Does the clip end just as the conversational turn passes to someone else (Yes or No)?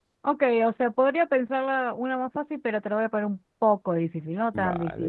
Yes